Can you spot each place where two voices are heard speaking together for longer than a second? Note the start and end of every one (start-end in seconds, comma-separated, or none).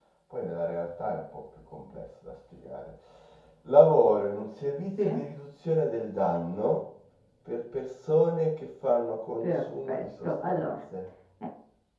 9.4-10.8